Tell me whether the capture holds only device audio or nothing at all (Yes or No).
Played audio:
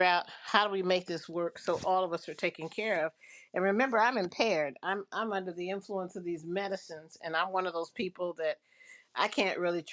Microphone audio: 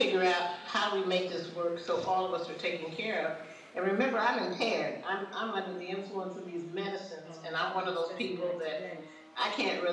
No